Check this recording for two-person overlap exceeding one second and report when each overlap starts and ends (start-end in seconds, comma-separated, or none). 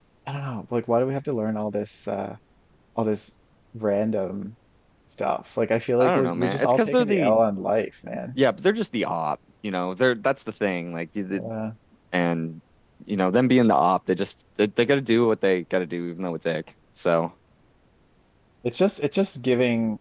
6.0-7.3